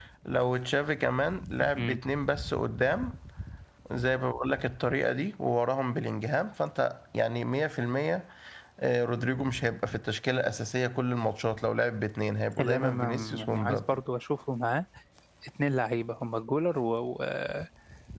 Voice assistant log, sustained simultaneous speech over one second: present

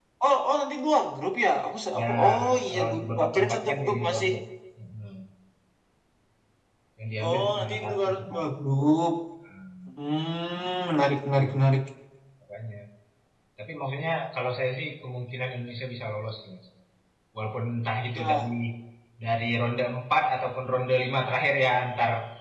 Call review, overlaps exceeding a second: present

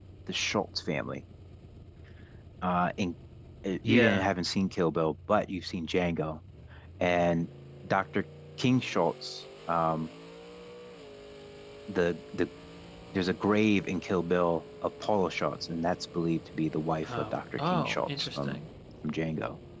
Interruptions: present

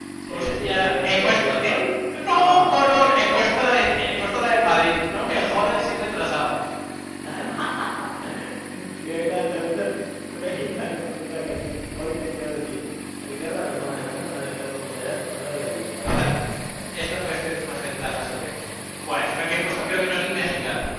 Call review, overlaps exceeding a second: present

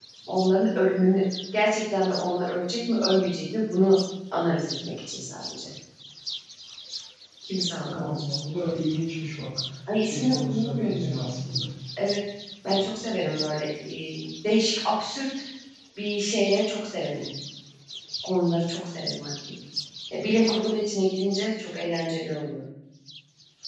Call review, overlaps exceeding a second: present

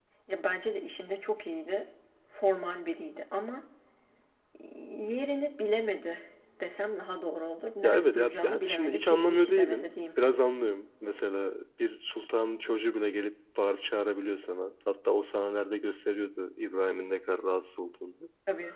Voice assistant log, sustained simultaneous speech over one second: present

